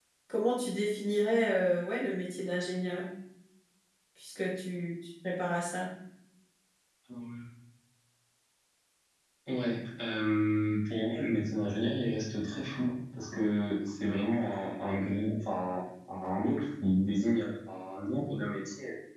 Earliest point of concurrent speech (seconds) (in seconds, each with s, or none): none